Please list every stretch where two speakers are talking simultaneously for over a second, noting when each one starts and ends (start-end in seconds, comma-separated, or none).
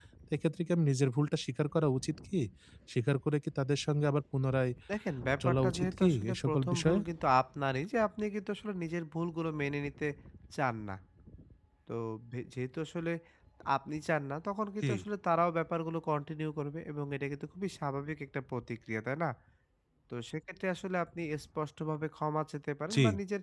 5.4-7.0